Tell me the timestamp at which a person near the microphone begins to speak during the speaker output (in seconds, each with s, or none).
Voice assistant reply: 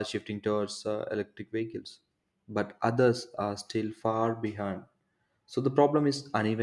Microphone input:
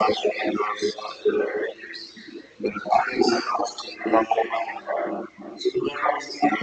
none